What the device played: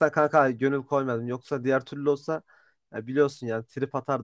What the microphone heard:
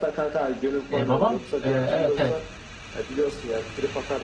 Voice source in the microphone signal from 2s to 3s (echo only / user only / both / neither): both